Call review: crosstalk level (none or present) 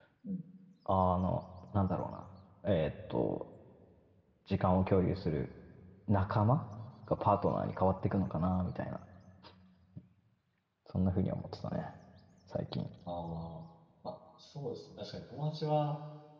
none